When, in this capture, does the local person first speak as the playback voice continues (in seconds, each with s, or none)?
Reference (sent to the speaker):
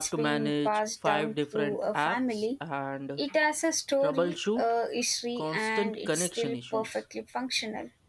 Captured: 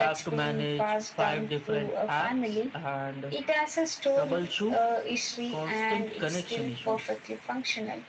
none